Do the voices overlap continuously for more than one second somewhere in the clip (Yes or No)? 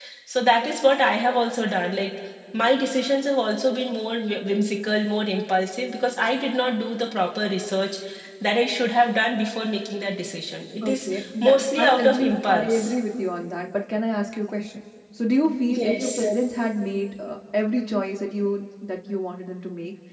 Yes